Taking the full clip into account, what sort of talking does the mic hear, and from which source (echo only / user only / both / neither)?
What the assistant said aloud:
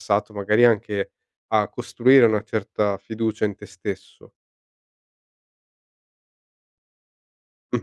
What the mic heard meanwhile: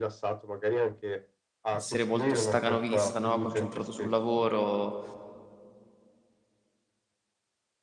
both